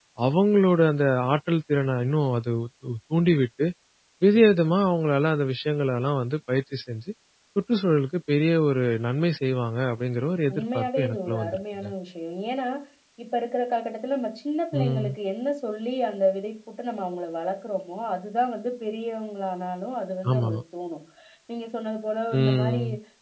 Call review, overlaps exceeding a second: present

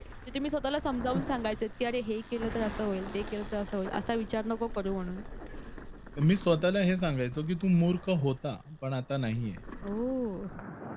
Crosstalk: none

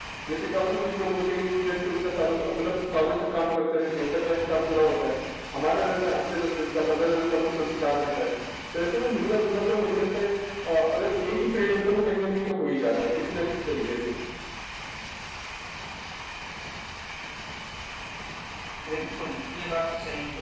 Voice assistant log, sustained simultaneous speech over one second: none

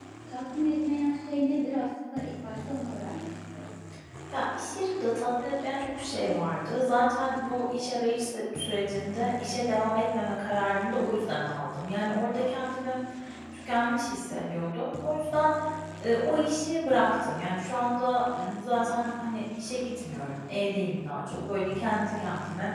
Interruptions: none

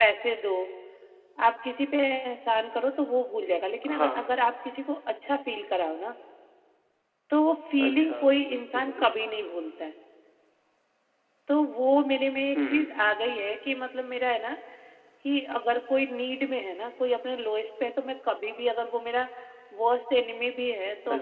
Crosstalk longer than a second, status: none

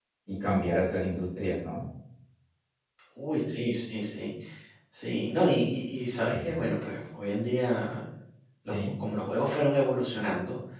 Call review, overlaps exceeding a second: none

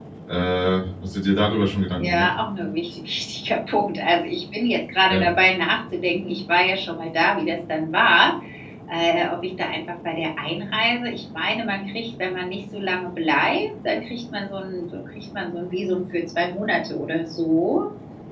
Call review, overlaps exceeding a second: none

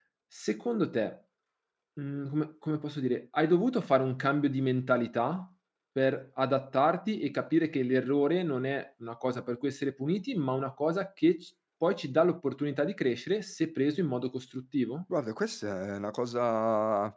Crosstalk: none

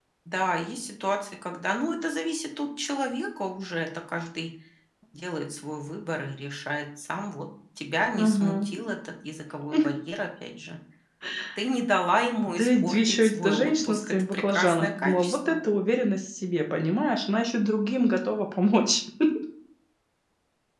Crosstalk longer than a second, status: present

